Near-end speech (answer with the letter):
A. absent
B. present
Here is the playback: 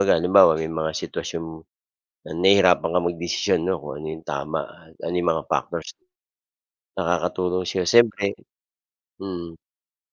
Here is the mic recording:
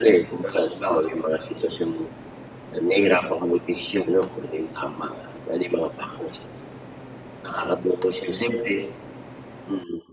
A